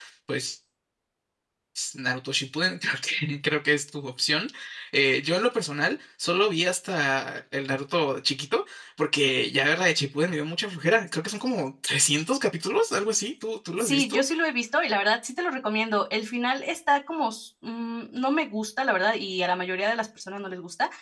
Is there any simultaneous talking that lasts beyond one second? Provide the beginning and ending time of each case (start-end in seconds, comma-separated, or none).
none